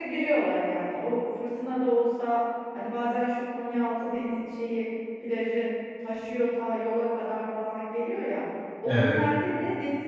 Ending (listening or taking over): listening